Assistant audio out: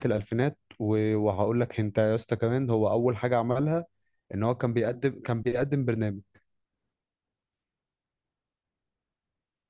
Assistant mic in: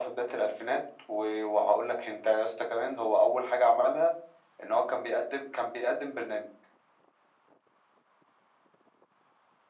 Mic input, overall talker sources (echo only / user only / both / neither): echo only